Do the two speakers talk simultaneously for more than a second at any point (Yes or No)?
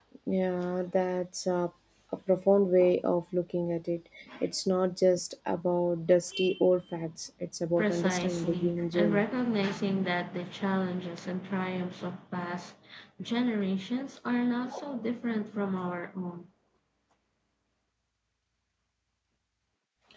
Yes